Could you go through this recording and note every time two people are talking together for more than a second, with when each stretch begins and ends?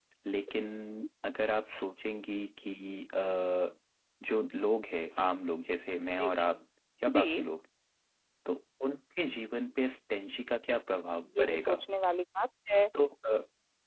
none

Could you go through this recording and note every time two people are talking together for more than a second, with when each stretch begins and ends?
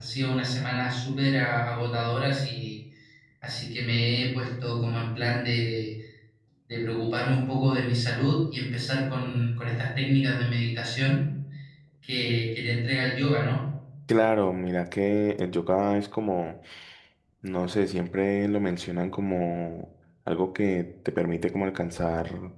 none

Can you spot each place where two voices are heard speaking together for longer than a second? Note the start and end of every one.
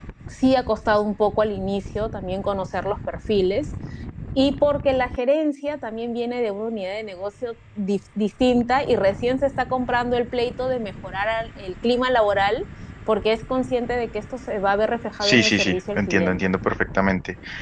15.2-16.5

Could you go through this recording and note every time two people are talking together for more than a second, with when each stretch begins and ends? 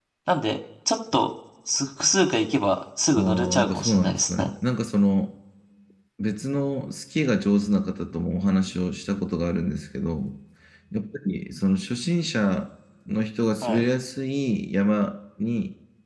3.2-4.5

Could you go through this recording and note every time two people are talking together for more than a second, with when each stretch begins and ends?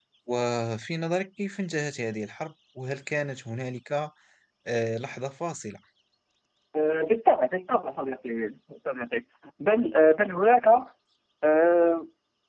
none

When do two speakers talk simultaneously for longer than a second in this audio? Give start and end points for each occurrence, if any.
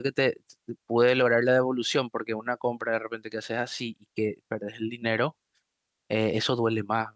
none

